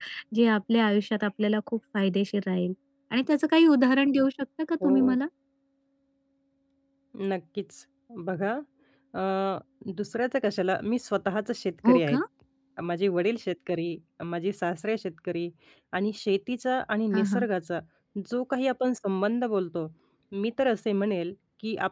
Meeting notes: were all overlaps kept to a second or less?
Yes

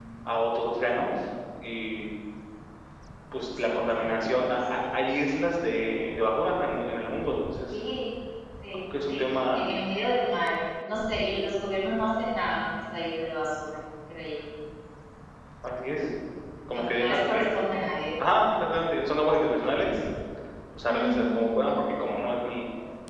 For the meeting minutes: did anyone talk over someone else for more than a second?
Yes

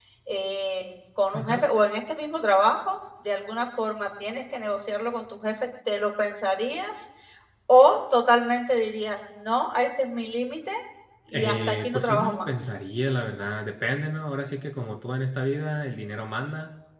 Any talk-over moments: Yes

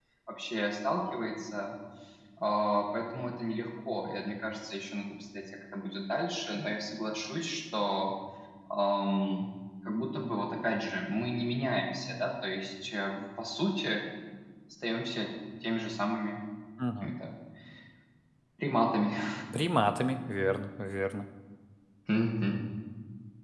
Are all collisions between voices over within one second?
Yes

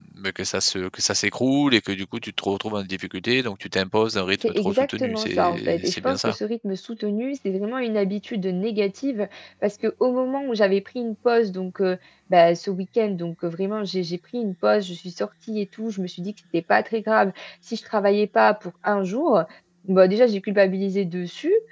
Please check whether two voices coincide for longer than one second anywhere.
Yes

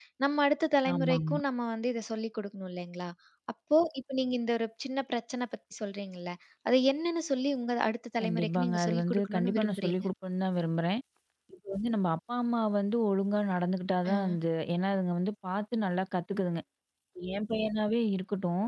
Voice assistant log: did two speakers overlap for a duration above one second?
Yes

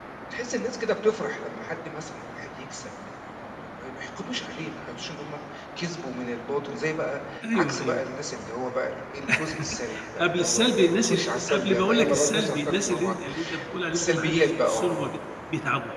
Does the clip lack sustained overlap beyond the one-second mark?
No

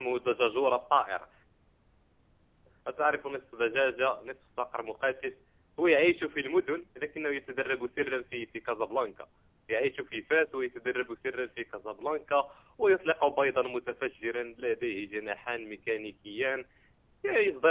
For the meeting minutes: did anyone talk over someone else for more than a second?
No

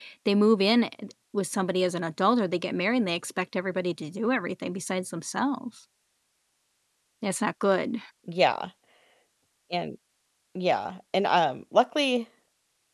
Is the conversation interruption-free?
Yes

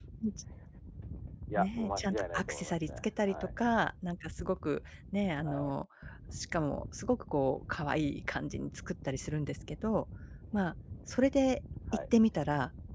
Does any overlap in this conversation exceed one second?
Yes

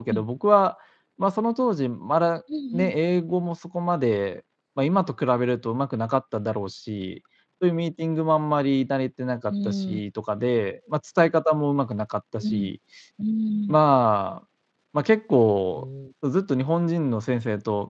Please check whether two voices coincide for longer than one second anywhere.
No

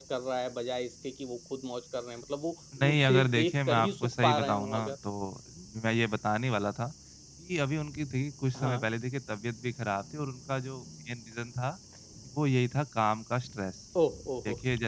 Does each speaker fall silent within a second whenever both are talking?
No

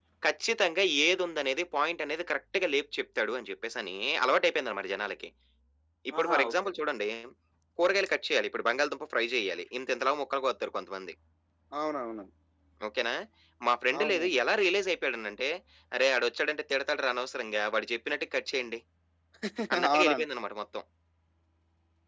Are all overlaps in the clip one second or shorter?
Yes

